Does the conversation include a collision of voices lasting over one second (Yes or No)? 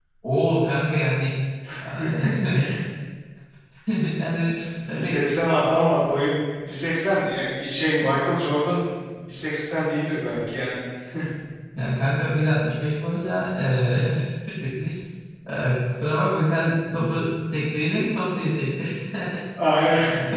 No